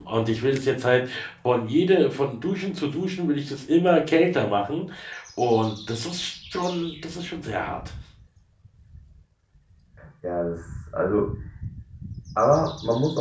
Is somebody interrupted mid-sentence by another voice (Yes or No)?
No